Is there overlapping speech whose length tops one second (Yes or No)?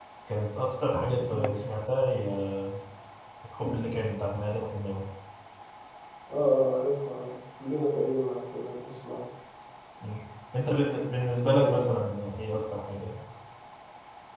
No